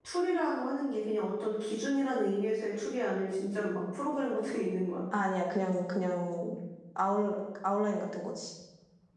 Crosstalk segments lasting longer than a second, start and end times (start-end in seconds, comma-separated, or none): none